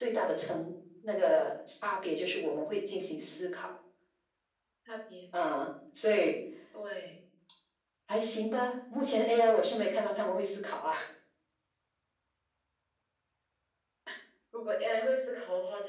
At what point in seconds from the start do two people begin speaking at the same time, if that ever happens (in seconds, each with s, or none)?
none